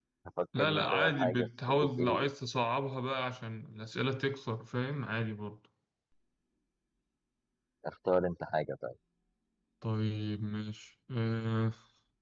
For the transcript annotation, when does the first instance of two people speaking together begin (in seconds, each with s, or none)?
0.6 s